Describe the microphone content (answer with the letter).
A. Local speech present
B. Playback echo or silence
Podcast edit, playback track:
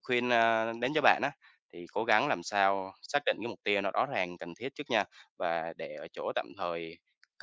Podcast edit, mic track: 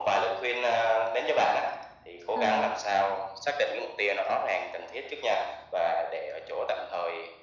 A